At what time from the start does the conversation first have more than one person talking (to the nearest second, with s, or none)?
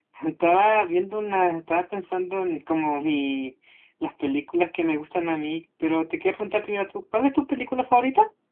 none